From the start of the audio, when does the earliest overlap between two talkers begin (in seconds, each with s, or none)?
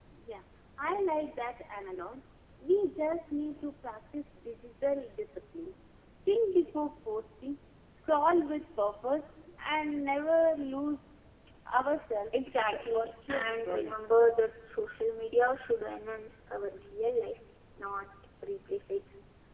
12.6 s